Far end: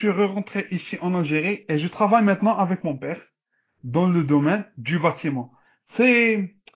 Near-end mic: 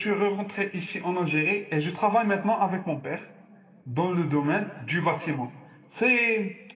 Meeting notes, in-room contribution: none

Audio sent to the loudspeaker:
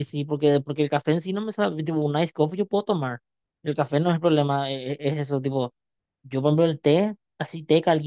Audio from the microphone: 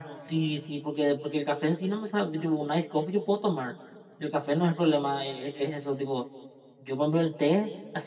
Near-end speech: none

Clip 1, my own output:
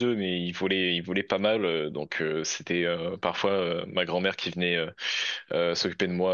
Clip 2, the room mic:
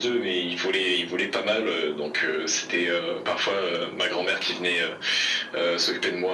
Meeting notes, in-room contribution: none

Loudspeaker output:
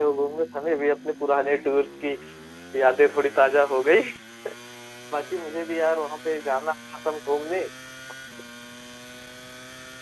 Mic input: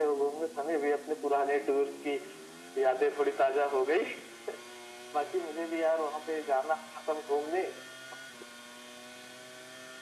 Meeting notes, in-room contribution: none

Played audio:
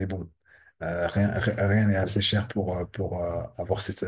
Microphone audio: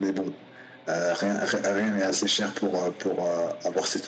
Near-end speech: none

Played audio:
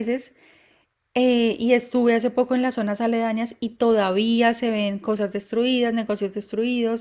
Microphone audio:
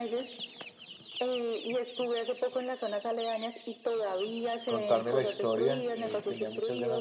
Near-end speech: present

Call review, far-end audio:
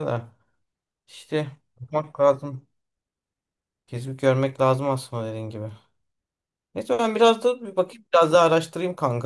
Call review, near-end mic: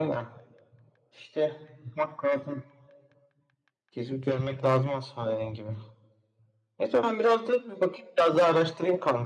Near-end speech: none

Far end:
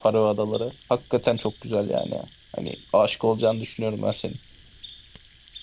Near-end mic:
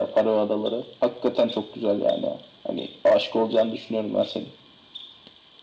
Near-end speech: none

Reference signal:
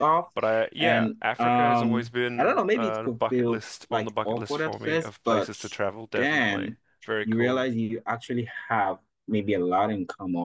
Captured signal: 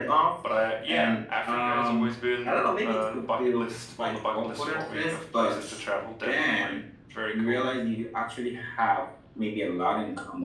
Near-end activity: none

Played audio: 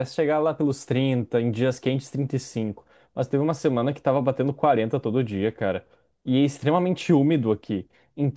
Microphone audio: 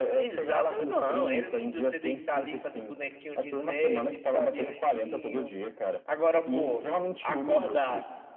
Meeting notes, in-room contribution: present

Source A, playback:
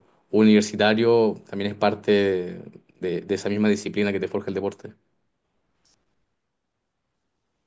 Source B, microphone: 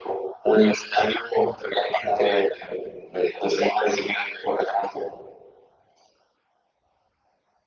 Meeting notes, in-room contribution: none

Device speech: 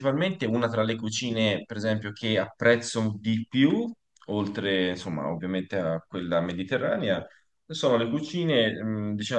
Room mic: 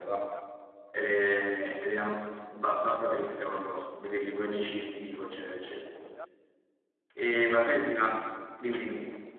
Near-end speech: present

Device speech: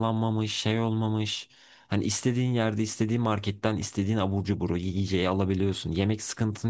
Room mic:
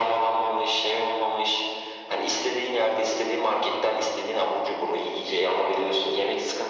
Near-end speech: none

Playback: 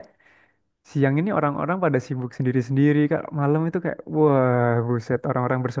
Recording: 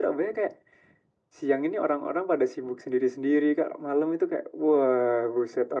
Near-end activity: none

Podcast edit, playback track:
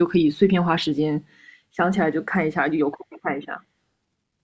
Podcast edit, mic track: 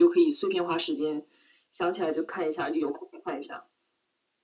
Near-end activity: none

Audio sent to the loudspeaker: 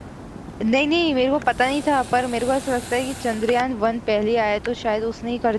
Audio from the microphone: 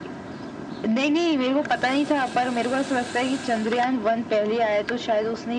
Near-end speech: none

